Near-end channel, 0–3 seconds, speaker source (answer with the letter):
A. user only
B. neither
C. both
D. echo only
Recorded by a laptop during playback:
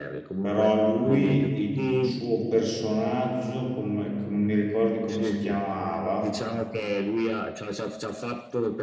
C